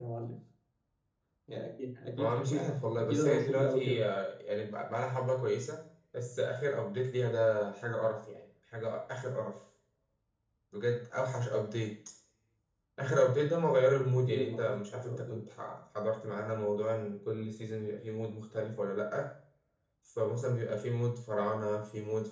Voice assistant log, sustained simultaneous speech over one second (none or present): present